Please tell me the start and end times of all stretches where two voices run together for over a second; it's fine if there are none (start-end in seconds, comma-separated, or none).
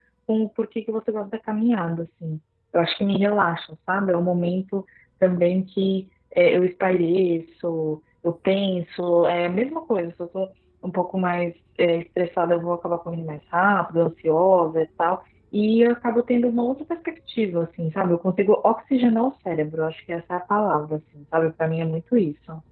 none